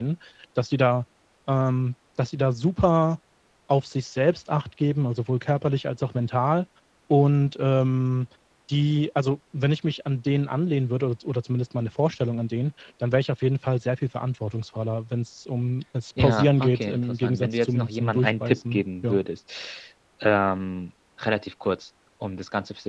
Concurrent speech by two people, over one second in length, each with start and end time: 16.2-19.2

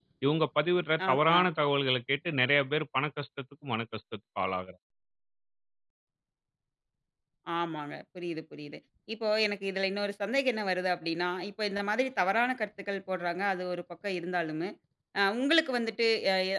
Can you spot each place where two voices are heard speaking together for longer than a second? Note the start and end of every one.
none

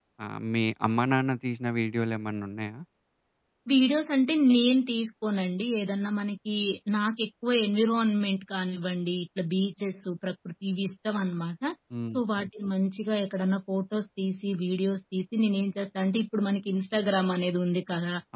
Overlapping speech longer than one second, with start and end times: none

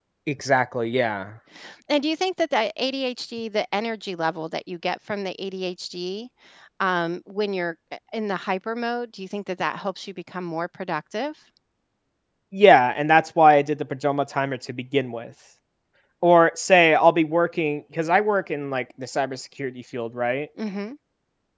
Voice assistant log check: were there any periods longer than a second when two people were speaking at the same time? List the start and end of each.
none

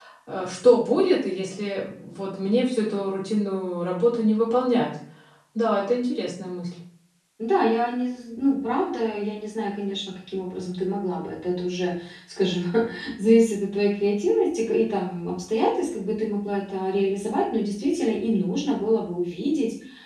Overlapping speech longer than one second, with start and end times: none

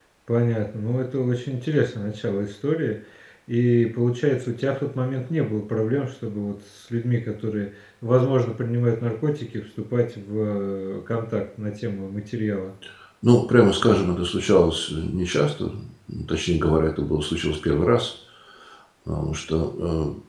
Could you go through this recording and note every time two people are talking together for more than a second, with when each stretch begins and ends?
none

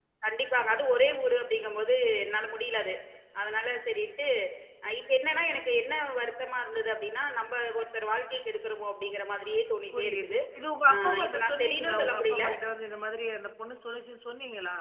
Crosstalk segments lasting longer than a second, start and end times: 10.9-12.4

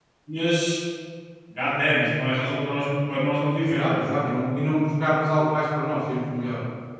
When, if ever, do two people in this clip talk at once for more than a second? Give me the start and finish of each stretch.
none

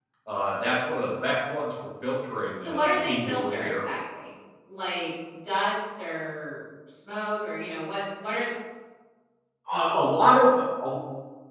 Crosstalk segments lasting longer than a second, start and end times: 2.6-3.9

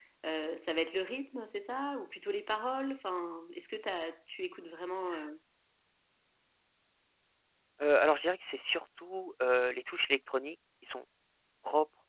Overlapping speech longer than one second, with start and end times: none

